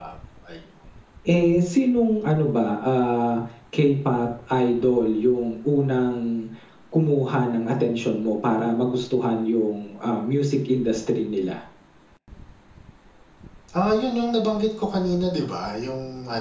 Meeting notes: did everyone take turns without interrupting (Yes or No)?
Yes